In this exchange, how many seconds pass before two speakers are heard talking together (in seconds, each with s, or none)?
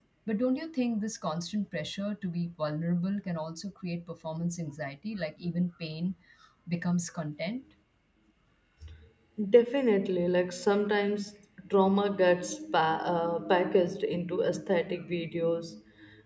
none